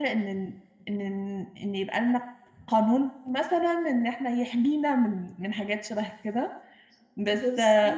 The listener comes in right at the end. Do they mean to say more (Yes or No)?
No